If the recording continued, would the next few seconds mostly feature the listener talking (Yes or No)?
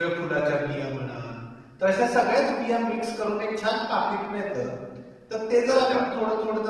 No